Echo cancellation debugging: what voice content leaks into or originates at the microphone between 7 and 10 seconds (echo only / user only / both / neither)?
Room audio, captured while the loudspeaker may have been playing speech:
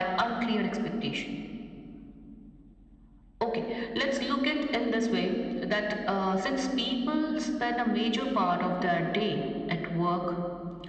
echo only